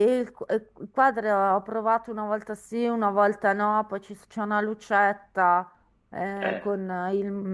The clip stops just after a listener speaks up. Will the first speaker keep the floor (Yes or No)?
Yes